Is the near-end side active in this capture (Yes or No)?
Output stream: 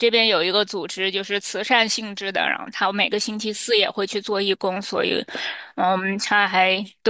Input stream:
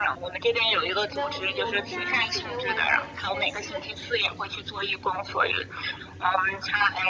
Yes